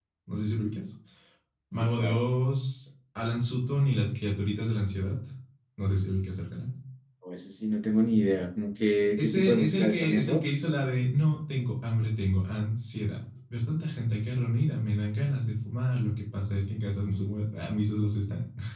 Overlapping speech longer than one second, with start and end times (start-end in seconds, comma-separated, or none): 9.2-10.4